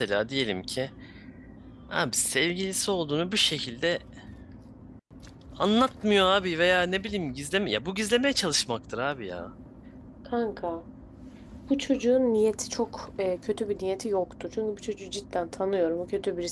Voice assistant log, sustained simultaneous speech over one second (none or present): none